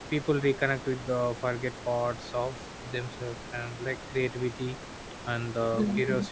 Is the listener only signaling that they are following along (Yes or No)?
Yes